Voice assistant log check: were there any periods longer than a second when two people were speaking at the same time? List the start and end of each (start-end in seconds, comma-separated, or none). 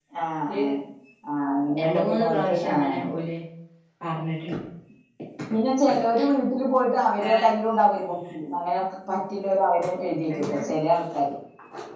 1.8-3.1